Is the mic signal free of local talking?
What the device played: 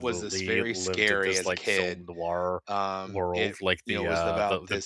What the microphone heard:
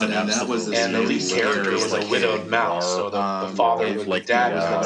No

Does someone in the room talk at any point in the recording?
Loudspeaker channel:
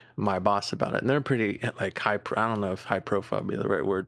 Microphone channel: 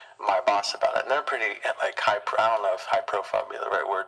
No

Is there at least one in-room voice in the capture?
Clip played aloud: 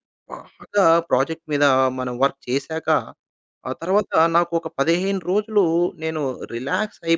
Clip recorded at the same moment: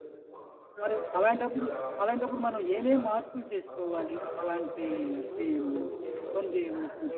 Yes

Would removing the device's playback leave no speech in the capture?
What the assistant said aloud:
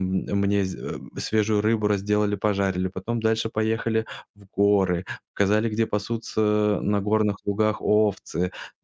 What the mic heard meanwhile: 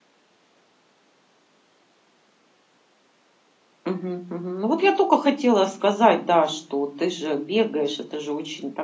No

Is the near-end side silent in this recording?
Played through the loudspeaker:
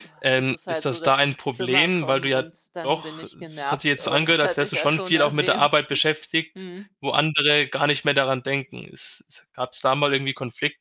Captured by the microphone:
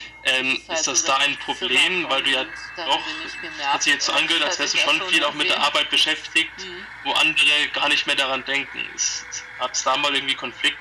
Yes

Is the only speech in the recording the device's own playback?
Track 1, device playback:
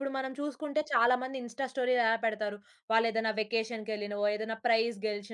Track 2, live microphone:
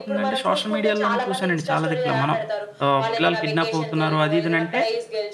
No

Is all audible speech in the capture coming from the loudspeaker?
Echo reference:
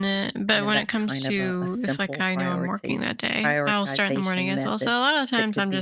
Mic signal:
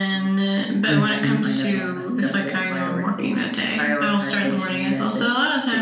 No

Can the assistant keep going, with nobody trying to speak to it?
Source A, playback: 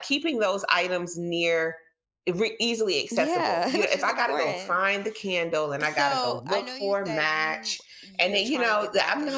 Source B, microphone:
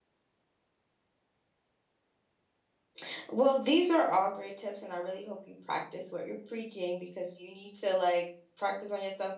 No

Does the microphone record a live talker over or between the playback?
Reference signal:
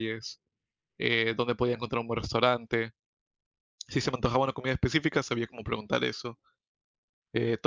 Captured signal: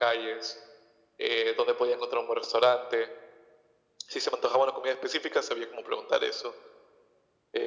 No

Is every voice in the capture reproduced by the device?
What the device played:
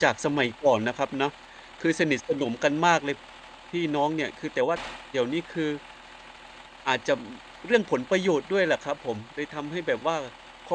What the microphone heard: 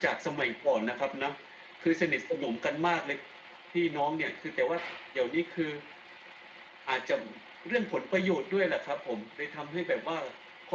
Yes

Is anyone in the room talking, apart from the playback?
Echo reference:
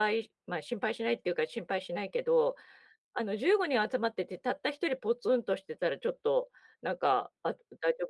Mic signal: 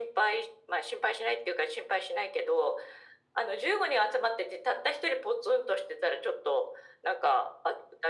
No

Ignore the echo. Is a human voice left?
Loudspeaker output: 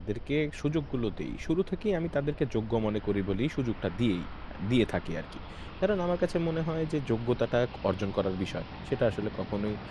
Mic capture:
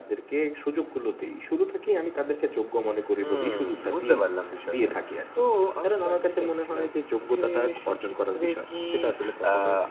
Yes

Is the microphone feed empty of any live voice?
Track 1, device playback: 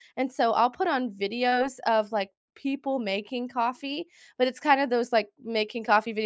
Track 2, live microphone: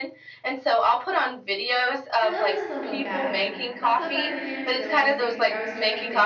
No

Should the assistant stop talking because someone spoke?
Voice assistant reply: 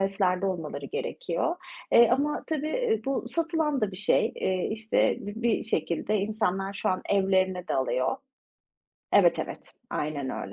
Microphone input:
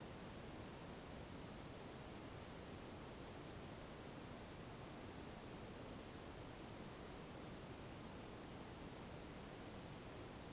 No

